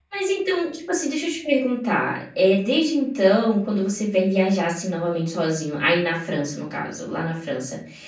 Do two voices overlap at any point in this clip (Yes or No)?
No